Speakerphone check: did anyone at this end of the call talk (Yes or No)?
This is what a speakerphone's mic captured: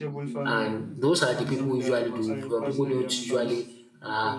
Yes